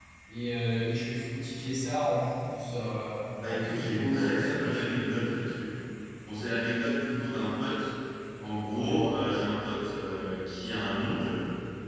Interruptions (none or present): present